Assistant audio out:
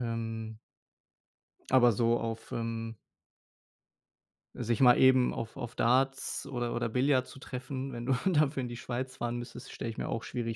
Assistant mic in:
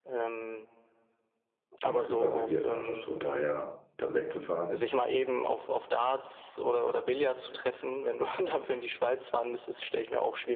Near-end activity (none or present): present